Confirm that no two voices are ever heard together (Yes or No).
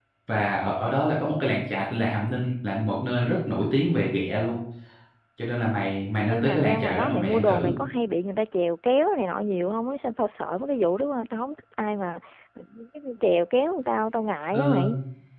No